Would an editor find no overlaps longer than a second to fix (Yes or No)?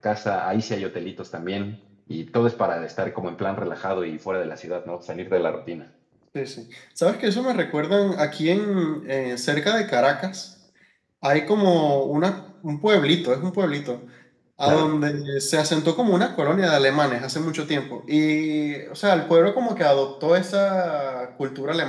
Yes